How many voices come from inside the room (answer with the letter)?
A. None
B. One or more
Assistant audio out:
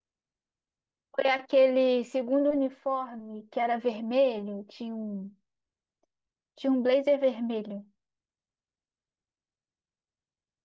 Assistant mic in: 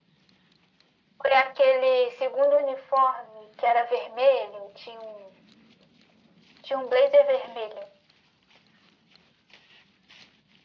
A